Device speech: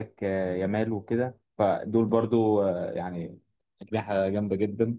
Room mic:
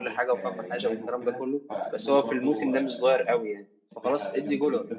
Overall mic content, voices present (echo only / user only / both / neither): both